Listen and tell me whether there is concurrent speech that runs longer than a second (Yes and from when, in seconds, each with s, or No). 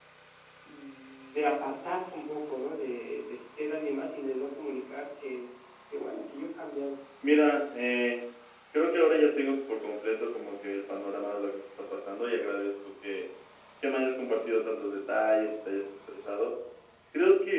No